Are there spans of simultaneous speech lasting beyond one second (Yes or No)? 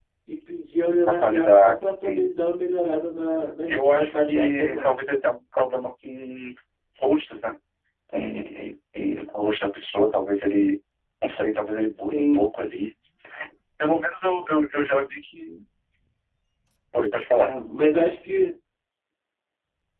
Yes